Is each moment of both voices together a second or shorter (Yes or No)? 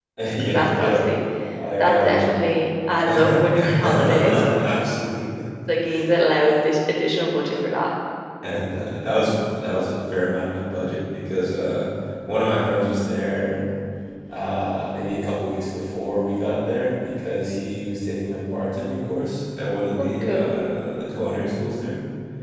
No